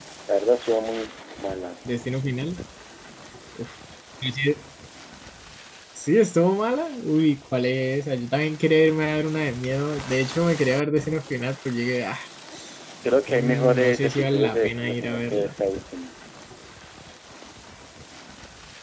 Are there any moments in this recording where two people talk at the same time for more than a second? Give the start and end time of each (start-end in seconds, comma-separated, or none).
13.3-15.5